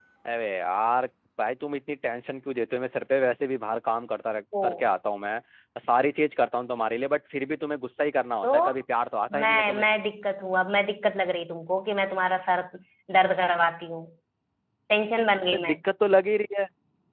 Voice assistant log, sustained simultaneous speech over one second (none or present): none